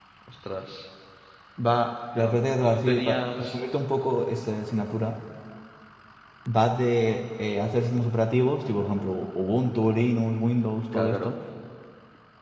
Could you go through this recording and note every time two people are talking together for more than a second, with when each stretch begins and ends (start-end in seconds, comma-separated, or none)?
2.2-3.6